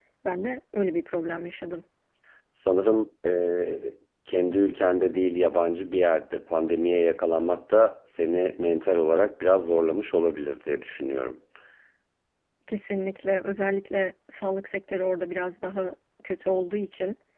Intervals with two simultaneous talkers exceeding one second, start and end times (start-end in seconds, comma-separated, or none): none